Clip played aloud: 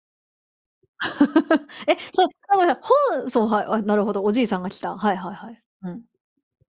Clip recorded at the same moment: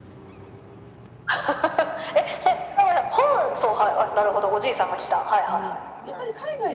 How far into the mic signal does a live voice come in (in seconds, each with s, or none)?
5.4 s